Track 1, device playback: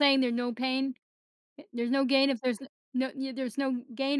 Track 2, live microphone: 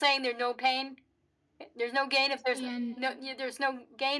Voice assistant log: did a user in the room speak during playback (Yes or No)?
Yes